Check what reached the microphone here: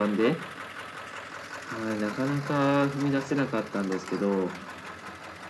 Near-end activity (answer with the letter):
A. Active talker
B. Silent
B